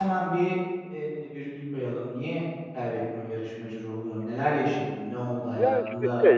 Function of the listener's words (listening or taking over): taking over